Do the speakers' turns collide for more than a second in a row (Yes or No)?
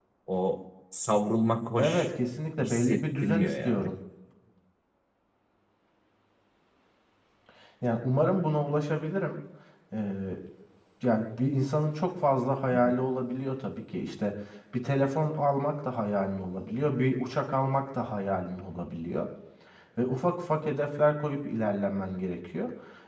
Yes